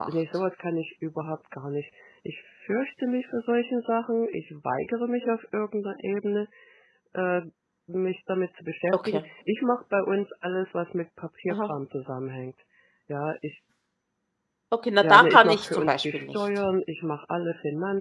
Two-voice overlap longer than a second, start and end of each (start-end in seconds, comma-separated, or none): 15.0-16.4